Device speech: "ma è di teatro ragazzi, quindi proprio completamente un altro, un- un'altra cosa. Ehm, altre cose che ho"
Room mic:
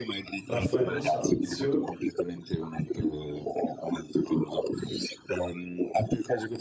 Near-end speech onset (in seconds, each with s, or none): 0.4 s